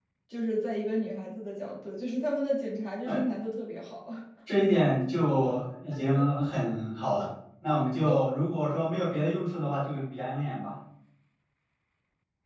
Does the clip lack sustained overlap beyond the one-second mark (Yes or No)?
Yes